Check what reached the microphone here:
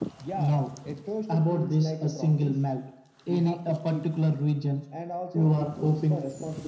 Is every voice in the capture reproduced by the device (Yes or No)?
Yes